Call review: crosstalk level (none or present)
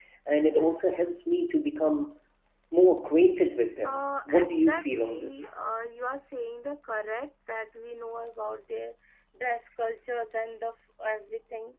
present